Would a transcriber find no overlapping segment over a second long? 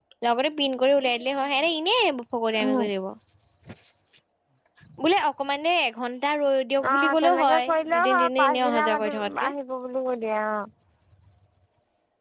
No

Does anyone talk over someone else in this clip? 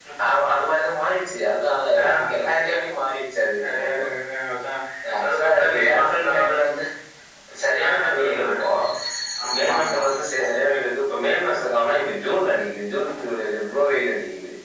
Yes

